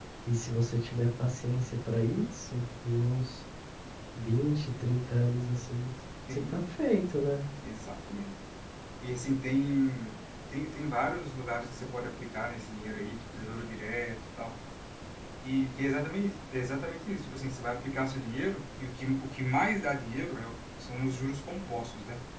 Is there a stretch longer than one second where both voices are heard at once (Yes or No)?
No